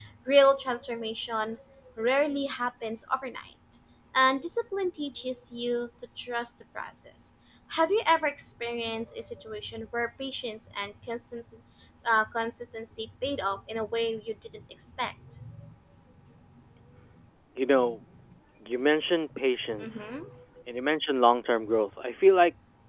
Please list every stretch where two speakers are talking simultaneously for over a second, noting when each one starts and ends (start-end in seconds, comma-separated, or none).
none